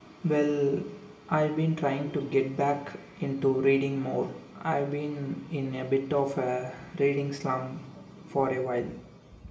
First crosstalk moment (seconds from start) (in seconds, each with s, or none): none